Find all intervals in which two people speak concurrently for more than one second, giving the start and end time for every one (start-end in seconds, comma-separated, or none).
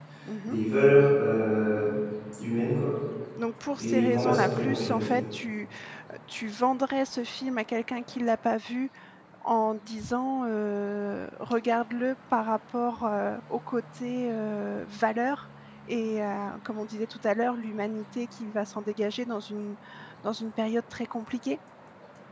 3.8-5.0